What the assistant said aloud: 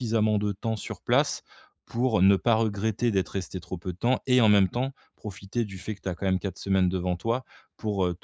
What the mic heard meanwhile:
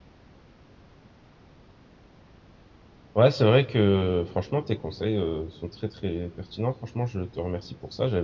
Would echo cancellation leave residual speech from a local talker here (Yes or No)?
Yes